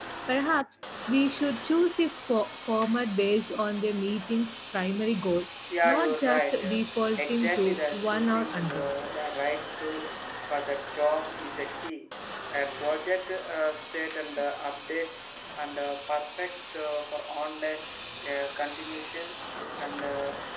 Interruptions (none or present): present